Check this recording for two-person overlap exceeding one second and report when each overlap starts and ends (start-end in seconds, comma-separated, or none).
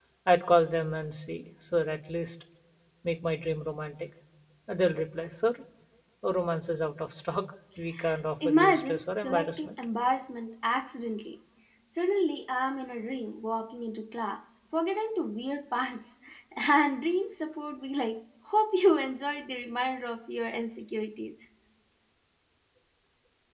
8.4-9.8